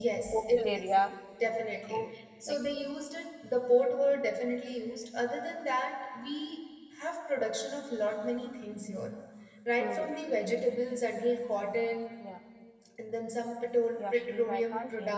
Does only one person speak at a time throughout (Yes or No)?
No